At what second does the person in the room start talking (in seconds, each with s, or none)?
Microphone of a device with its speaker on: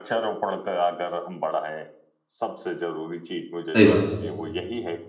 3.7 s